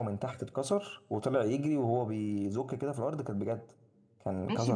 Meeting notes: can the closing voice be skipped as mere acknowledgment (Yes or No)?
No